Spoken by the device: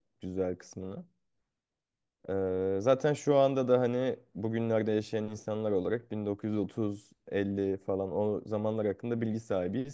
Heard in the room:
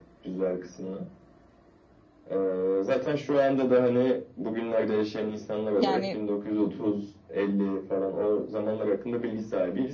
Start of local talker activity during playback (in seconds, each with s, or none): 5.8 s